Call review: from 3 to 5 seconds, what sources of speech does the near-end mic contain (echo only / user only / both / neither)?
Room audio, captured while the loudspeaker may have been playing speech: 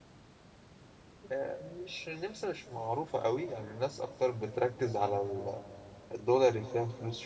user only